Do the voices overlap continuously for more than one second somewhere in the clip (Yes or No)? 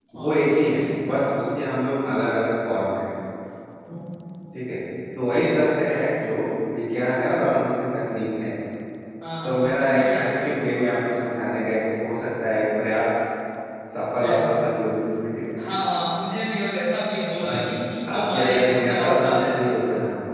Yes